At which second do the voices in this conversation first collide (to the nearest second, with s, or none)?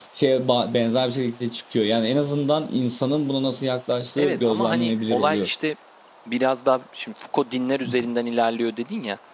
4 s